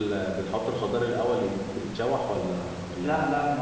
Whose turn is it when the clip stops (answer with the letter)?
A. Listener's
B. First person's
A